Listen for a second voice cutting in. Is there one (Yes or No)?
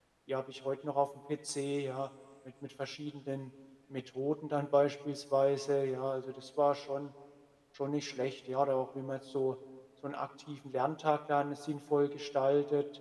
No